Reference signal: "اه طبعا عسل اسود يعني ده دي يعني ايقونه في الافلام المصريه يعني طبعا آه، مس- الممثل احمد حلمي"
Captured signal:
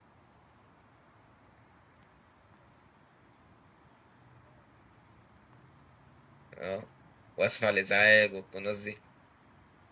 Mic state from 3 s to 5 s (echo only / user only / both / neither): neither